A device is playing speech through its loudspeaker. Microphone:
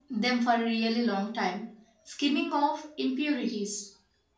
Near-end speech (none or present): none